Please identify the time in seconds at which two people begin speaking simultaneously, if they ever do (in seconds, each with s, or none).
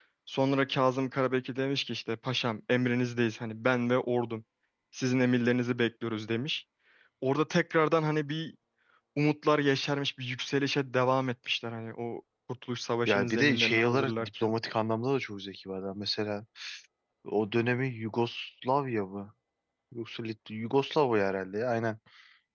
13.1 s